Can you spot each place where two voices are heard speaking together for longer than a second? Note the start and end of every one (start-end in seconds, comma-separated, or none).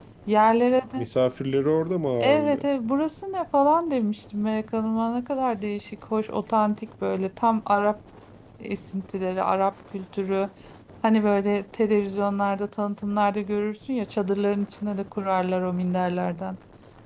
none